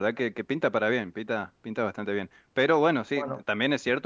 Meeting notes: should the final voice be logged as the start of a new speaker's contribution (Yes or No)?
No